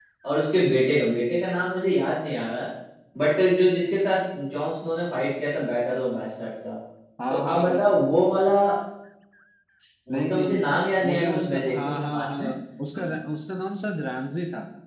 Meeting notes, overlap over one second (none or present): present